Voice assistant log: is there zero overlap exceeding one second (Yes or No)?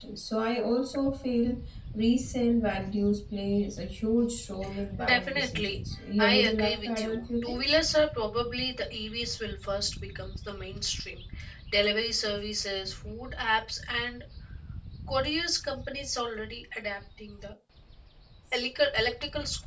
No